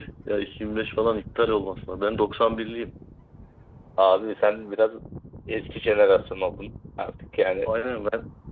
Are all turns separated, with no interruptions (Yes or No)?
Yes